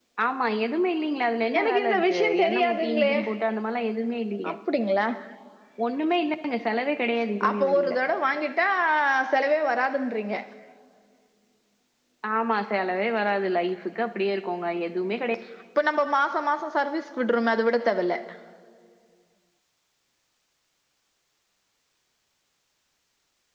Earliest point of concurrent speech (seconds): 2 s

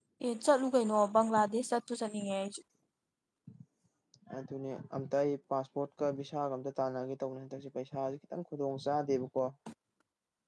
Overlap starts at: none

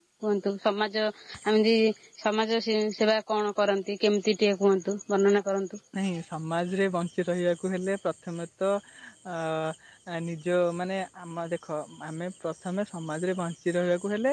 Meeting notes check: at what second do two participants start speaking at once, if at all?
none

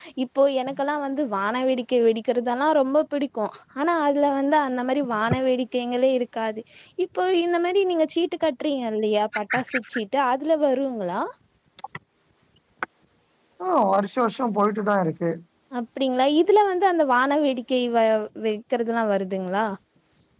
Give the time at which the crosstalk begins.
none

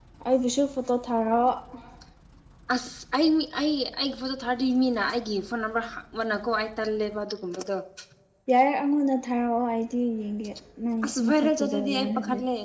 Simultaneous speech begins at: 11 s

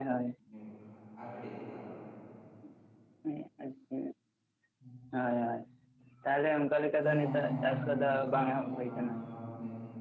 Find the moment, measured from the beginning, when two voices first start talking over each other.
7 s

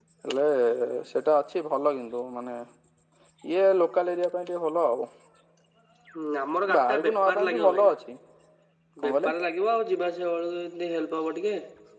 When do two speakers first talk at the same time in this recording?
7 s

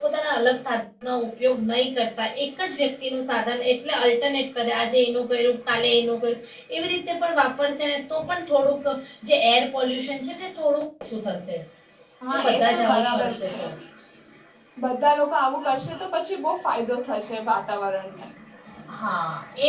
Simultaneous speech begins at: 12 s

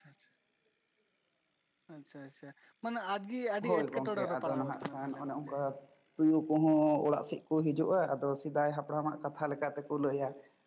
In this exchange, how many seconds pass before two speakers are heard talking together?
4 s

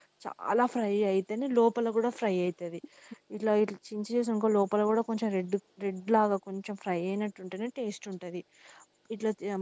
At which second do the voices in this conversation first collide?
none

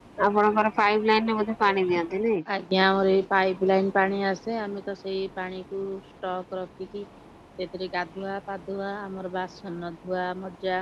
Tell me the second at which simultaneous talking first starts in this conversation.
none

